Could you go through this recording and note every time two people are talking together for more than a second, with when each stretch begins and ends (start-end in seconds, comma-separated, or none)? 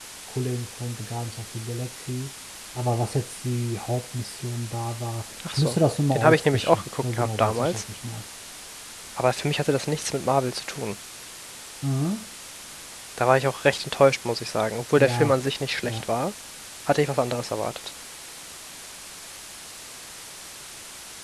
6.1-7.8